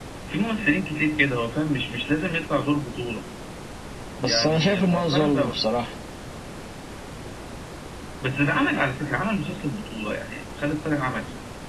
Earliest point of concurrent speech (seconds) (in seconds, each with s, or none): 4.2 s